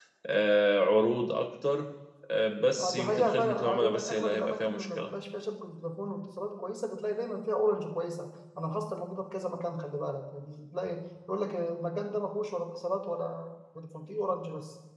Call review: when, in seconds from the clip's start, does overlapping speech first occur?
2.8 s

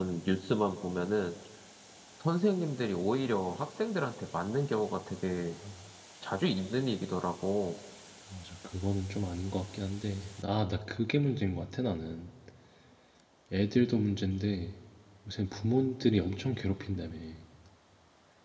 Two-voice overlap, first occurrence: none

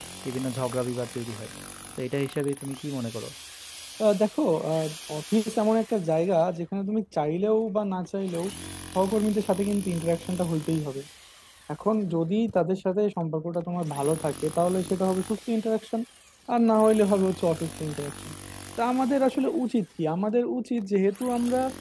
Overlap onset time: none

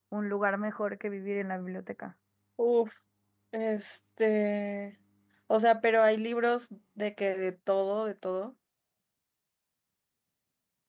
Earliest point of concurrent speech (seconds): none

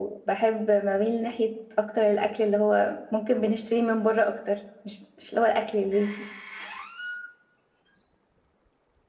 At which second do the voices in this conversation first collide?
none

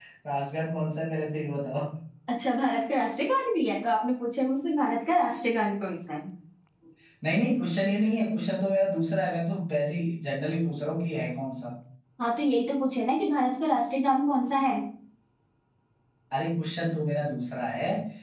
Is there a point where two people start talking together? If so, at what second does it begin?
none

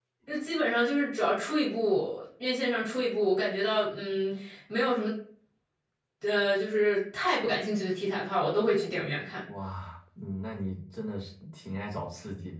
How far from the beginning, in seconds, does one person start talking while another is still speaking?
none

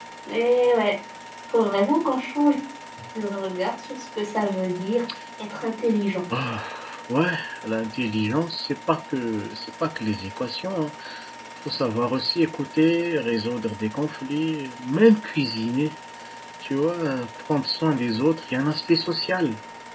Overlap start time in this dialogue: none

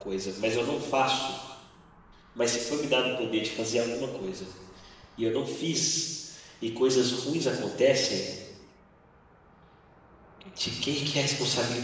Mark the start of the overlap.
none

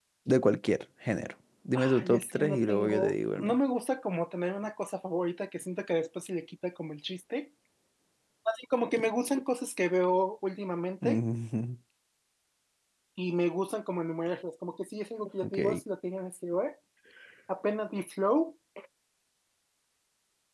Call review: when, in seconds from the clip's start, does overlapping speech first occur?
1.8 s

